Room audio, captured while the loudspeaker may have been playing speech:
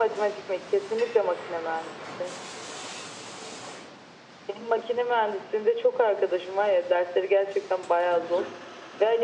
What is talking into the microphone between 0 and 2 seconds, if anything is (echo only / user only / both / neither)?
echo only